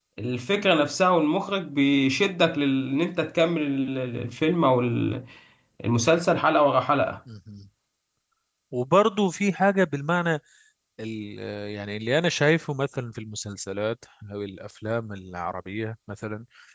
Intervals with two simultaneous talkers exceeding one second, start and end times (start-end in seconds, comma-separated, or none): none